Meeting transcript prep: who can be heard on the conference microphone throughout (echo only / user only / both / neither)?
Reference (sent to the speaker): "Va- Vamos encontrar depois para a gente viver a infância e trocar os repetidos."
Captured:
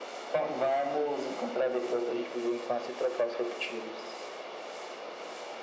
echo only